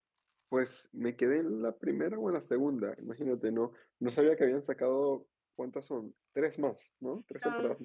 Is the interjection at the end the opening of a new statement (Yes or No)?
Yes